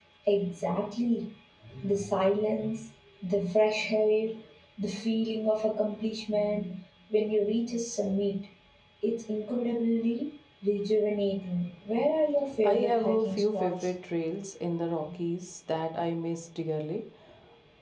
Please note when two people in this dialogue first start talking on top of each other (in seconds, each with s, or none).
12.6 s